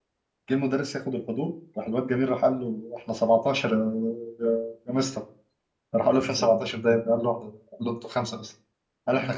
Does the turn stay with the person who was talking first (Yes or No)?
Yes